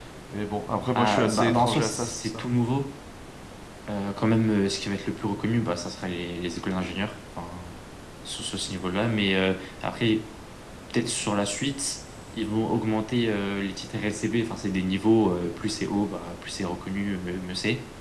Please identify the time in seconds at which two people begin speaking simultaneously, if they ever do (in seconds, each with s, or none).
1.0 s